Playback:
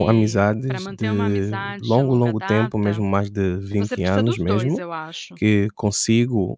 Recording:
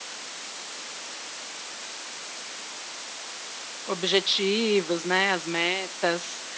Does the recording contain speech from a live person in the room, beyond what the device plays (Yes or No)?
Yes